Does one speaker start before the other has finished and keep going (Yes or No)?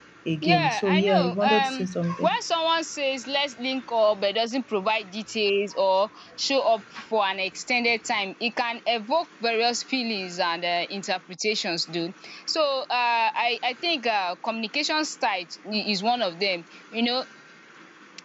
Yes